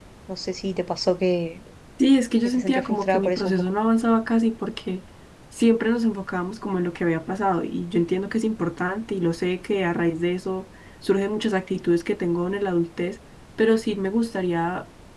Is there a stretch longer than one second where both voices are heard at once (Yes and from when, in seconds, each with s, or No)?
Yes, from 2.4 s